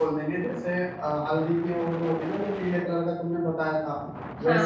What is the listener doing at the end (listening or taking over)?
listening